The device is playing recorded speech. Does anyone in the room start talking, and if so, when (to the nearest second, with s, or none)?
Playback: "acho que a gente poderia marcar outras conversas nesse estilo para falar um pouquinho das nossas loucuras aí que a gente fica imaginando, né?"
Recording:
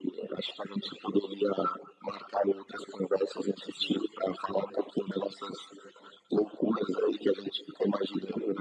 none